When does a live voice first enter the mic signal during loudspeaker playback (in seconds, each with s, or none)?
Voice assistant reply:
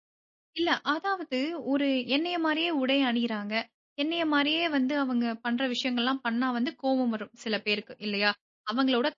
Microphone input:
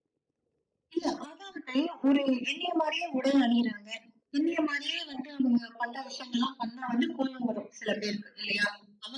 none